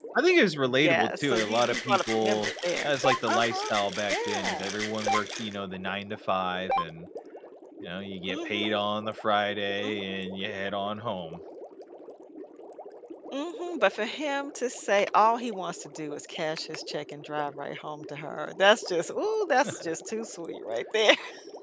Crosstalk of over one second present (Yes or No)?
Yes